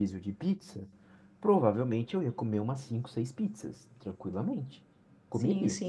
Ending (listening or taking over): listening